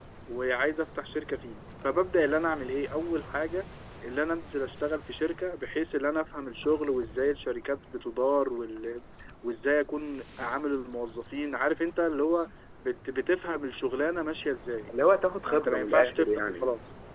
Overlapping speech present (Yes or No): Yes